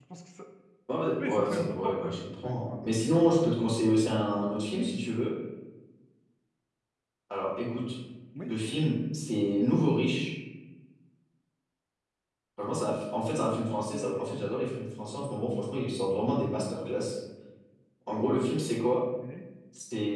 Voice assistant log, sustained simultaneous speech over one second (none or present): present